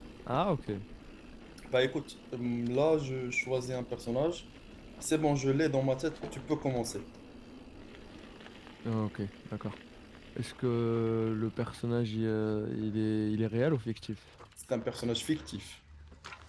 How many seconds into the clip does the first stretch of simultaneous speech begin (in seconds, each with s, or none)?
none